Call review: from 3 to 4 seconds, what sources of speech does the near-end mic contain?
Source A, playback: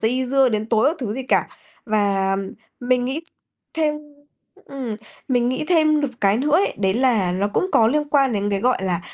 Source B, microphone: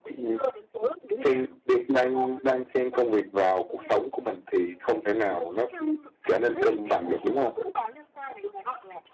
both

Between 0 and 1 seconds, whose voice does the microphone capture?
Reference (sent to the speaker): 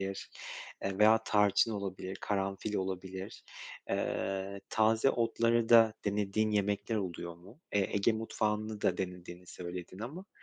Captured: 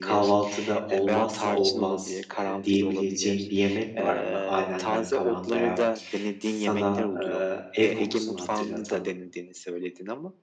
both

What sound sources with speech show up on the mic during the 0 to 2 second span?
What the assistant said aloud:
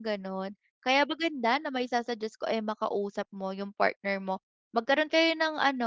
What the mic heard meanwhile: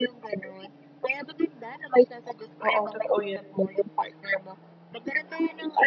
echo only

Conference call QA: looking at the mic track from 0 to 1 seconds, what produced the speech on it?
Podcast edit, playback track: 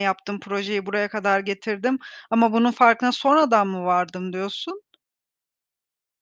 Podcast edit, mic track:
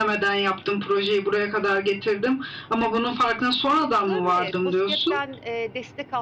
echo only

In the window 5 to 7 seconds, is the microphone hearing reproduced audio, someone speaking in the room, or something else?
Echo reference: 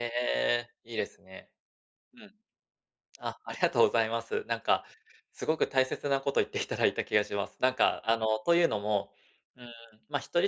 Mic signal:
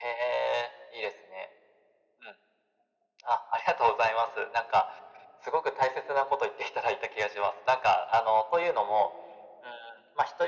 echo only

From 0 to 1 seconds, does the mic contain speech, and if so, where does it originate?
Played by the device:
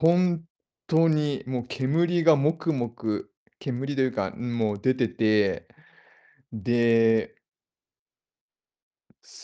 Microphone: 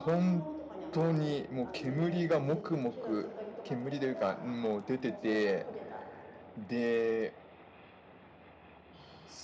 both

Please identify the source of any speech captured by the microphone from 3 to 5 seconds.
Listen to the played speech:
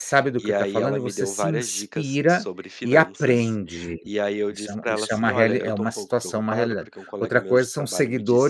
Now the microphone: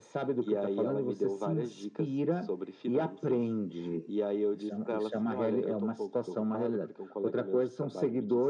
echo only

